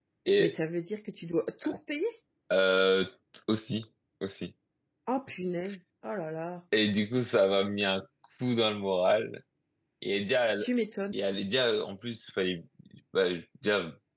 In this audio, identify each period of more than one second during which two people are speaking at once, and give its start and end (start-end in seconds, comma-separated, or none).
none